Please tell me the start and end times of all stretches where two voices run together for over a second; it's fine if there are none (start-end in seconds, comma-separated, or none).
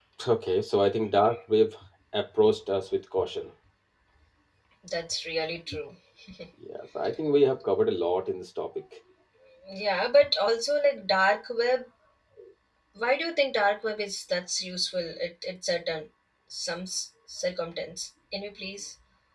none